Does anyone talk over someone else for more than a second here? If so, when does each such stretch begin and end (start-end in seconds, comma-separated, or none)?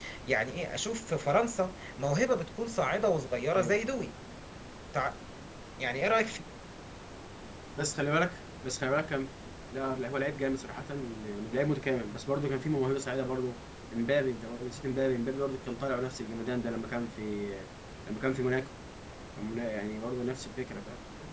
none